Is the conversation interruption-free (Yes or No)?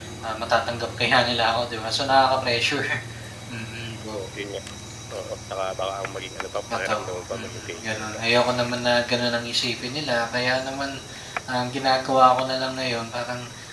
No